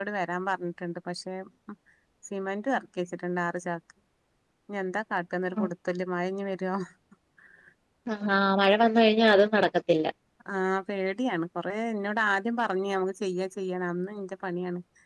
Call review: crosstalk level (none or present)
none